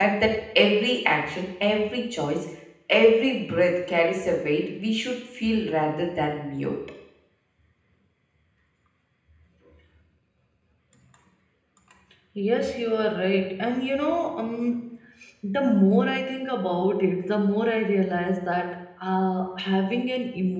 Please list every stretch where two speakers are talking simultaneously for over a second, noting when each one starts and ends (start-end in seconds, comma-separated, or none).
none